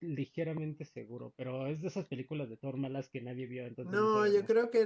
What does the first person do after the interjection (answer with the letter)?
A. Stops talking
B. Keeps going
A